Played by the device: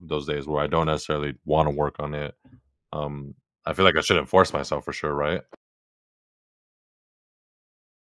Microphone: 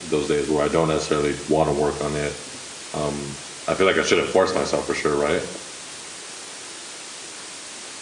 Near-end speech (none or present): none